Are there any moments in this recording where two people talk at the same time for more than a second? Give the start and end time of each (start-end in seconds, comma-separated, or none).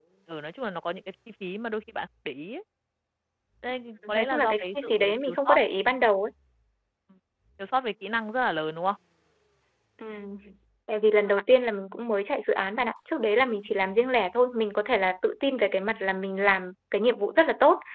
4.1-5.6